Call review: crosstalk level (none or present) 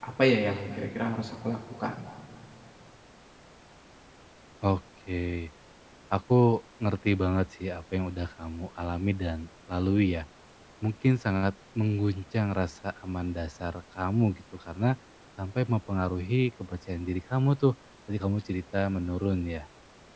none